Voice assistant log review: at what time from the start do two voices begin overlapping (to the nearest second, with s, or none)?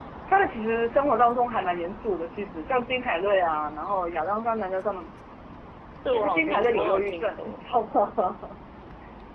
6 s